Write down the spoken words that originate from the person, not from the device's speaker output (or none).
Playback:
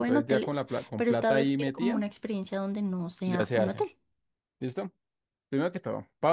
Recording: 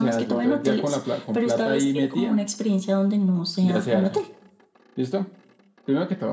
none